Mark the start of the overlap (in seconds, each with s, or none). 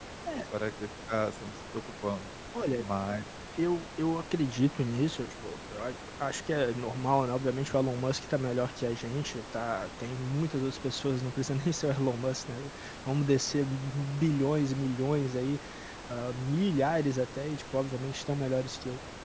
none